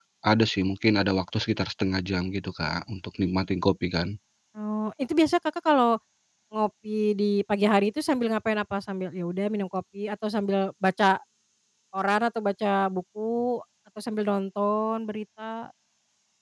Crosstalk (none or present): none